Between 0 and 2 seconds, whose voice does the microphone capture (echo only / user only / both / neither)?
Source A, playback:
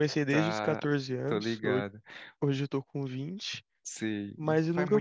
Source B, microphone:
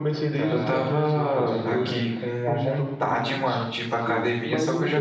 both